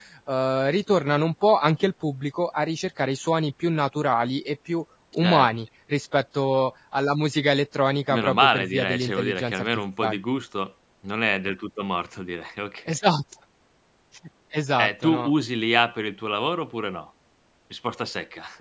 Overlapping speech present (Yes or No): Yes